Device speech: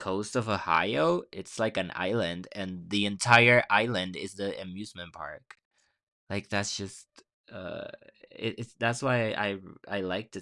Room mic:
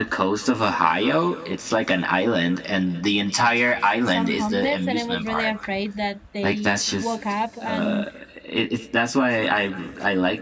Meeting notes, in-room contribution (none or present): present